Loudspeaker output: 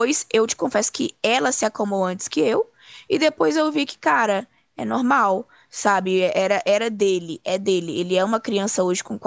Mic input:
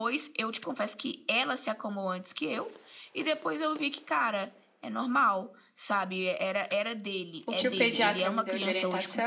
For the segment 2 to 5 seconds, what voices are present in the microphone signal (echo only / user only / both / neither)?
echo only